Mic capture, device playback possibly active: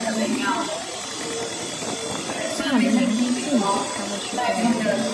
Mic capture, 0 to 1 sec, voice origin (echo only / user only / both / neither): echo only